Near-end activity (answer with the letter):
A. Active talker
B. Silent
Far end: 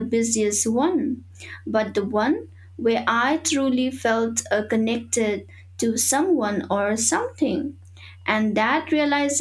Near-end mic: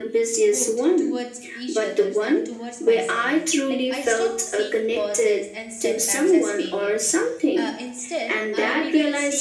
A